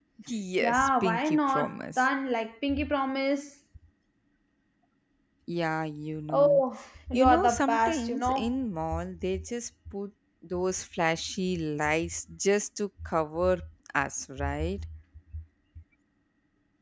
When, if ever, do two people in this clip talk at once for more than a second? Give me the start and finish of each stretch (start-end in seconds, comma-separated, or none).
0.6-2.0, 7.1-8.5